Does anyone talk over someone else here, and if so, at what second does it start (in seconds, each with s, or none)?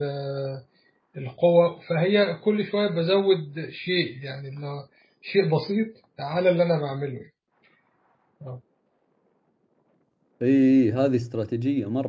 none